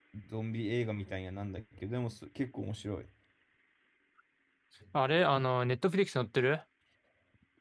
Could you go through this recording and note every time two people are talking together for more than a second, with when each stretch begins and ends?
none

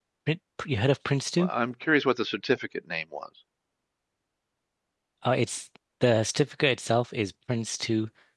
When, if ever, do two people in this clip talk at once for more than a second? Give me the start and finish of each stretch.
none

